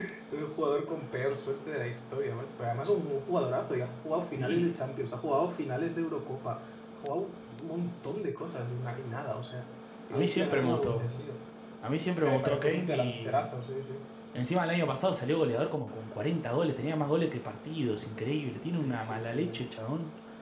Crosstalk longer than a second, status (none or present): present